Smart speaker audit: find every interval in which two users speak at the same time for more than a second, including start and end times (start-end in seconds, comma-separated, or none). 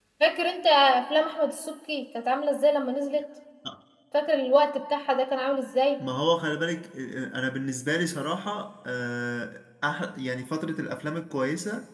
none